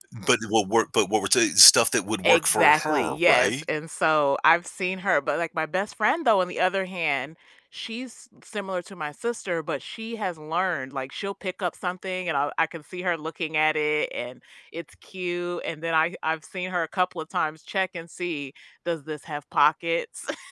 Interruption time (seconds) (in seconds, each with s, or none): 2.2 s